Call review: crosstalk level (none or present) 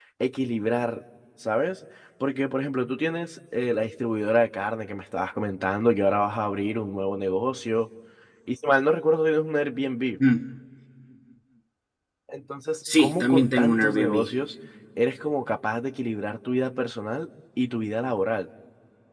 present